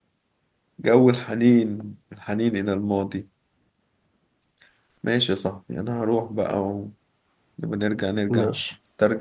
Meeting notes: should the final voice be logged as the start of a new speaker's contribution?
No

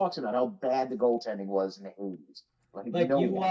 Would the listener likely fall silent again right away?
No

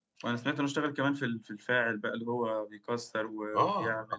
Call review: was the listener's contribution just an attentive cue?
No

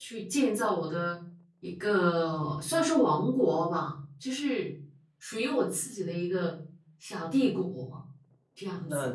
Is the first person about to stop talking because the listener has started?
Yes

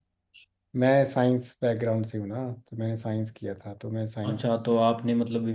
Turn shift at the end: Yes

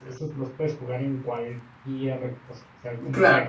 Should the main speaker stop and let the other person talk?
No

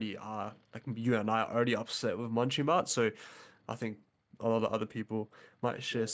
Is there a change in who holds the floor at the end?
Yes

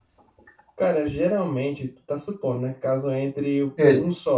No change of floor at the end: Yes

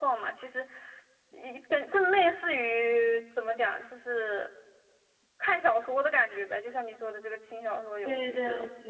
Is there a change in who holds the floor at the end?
Yes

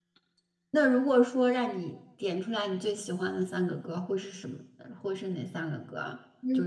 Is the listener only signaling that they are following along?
No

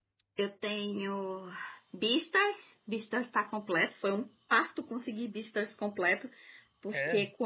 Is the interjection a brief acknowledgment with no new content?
Yes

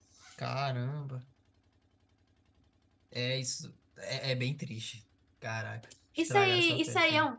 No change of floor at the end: No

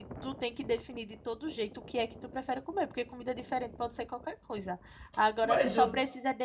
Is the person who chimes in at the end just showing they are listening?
Yes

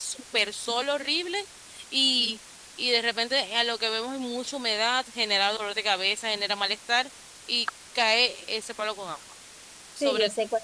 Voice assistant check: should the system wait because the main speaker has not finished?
No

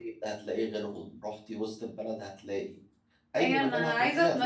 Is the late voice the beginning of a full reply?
Yes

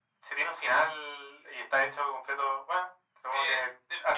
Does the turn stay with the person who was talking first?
No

